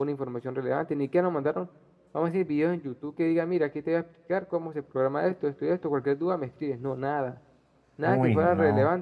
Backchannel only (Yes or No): Yes